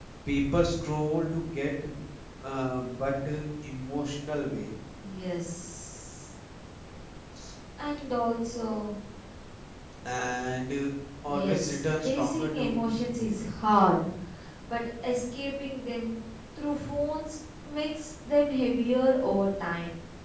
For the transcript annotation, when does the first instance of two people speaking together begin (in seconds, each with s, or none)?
11.2 s